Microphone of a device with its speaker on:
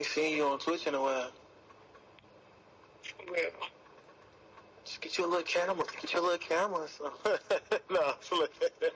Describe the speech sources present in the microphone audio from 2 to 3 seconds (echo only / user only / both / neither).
neither